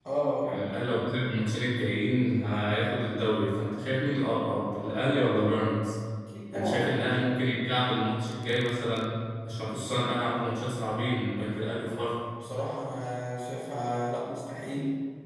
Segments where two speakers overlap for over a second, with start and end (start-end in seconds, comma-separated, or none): none